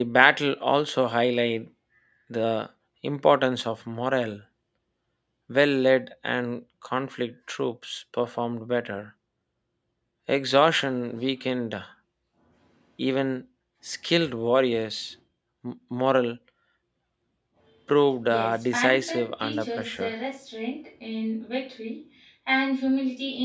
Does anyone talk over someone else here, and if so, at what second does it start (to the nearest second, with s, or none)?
18 s